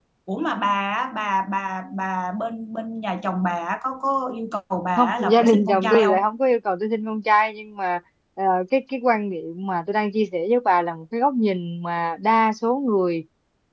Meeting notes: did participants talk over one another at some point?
Yes, from 5.0 s

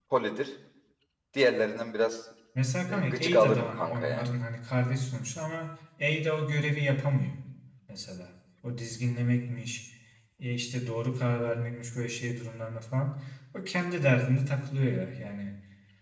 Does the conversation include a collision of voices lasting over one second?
Yes, from 2.9 s

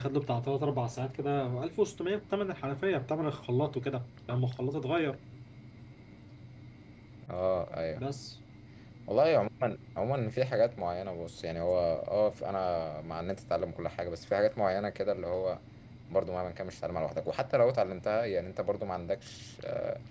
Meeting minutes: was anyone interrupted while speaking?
No

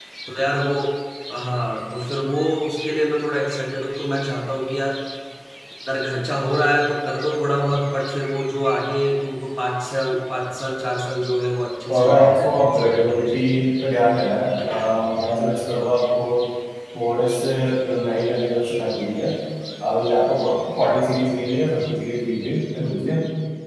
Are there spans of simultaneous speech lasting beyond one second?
Yes, from 11.9 s

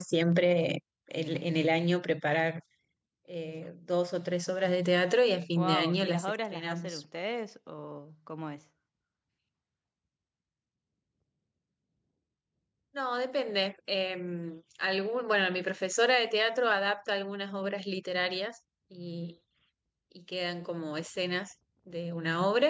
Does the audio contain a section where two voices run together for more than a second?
Yes, from 5.6 s

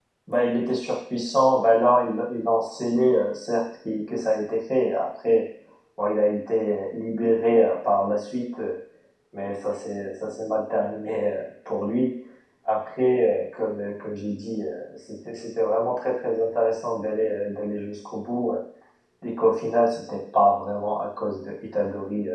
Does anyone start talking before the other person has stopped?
No

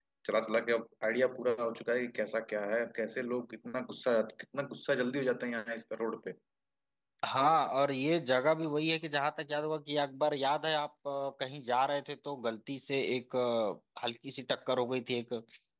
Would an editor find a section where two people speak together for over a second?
No

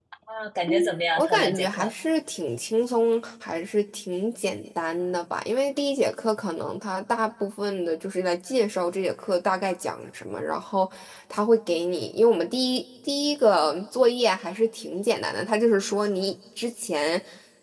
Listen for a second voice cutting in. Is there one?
Yes, from 0.7 s

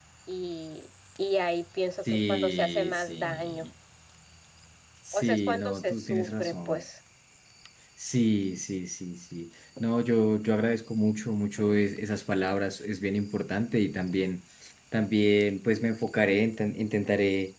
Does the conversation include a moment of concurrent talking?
Yes, from 2.1 s

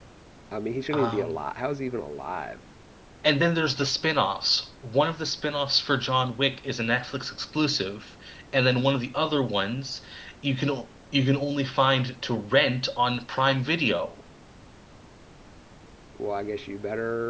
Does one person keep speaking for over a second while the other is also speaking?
No

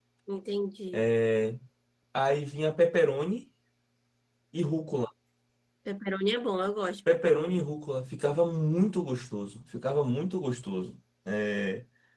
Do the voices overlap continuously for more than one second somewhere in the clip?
No

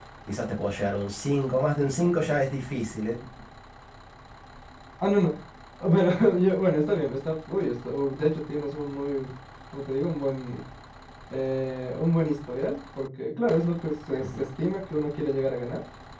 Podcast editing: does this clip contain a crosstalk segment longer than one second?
No

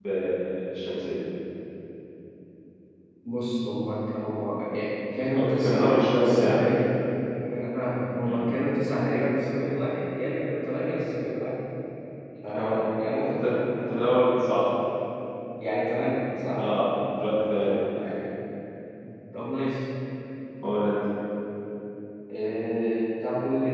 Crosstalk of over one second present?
Yes, from 5.3 s

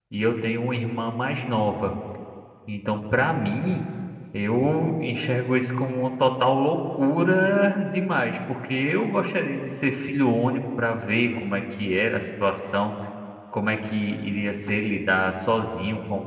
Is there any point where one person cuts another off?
No

